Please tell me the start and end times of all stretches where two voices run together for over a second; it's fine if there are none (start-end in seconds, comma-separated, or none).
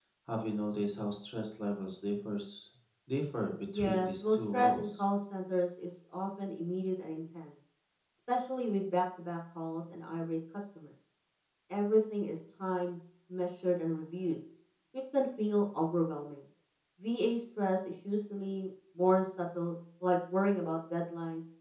3.7-5.0